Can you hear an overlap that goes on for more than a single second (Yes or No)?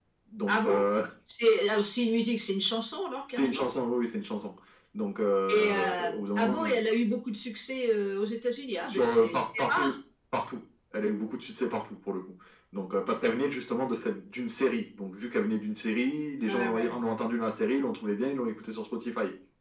Yes